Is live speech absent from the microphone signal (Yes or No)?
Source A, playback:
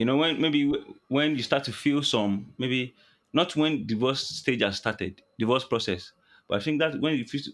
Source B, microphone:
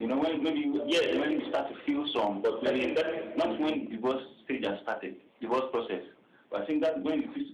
No